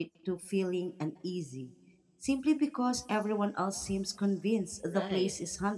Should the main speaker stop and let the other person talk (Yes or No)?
Yes